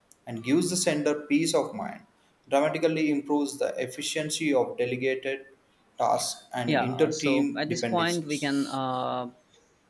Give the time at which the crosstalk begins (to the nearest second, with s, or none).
7 s